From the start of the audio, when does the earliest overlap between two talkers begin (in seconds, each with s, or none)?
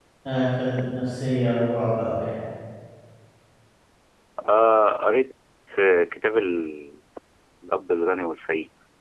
none